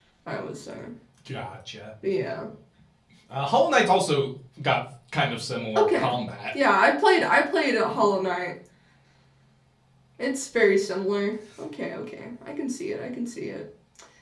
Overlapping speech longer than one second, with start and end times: none

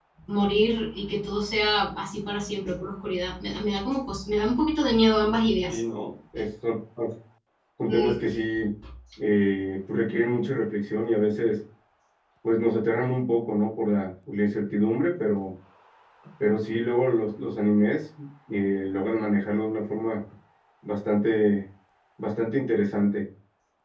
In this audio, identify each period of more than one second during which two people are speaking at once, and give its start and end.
none

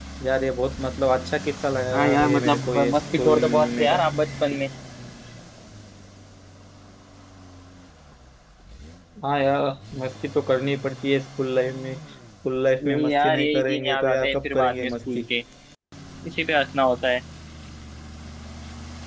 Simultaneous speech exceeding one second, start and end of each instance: 1.9-4.0, 12.8-15.2

